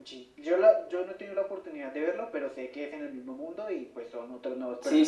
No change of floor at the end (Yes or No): No